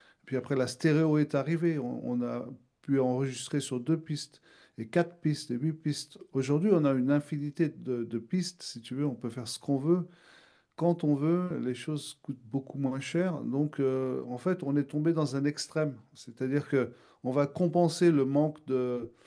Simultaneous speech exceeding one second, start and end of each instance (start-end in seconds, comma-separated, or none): none